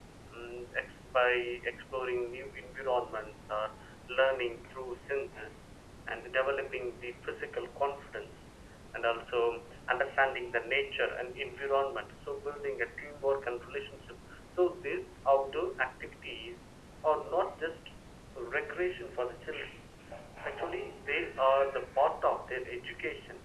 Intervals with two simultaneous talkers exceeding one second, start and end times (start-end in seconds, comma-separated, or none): none